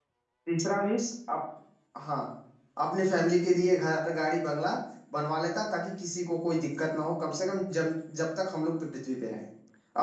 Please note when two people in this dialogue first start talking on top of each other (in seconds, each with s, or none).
none